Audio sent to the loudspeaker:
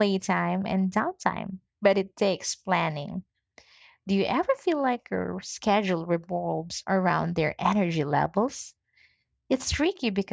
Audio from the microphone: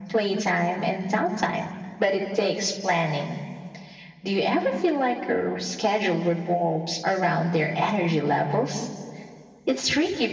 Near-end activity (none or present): none